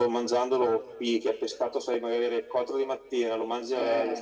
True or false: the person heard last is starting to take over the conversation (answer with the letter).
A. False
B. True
A